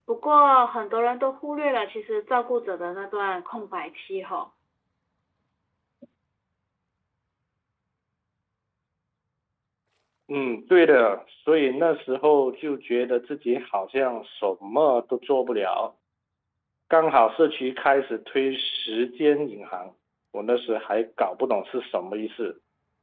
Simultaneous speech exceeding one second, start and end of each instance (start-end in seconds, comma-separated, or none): none